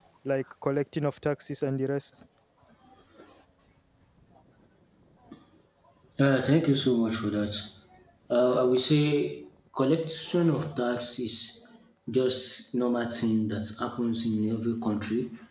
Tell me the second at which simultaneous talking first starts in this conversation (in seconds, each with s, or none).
none